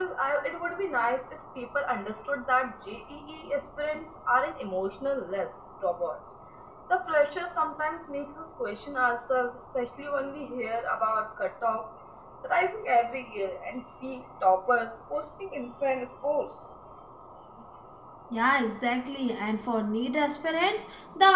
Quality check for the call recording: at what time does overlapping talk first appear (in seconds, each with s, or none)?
none